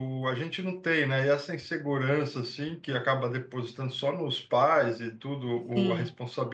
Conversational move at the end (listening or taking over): listening